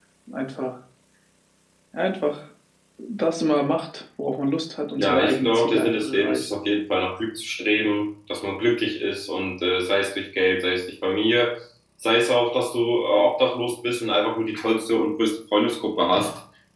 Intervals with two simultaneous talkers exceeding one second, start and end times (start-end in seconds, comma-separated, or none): 5.0-6.5